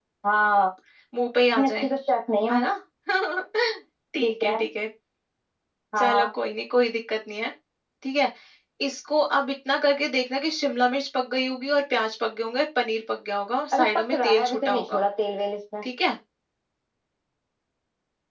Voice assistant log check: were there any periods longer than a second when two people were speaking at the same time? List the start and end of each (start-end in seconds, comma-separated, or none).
13.7-15.1